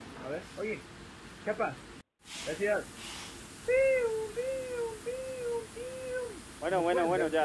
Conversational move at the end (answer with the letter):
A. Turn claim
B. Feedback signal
A